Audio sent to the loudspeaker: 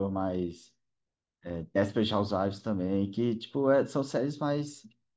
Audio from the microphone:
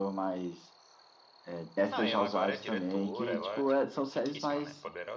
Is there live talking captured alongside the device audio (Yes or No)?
Yes